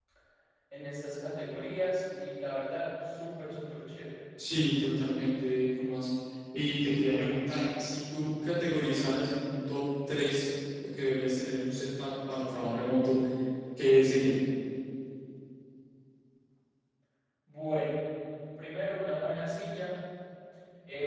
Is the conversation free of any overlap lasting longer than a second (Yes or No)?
Yes